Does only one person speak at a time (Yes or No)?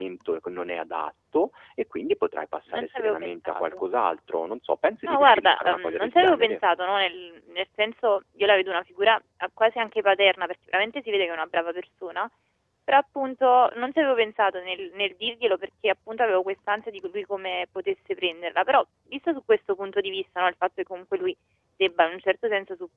No